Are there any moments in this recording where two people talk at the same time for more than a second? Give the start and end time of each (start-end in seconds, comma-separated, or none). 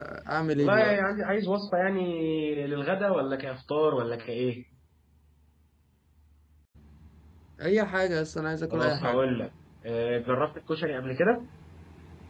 none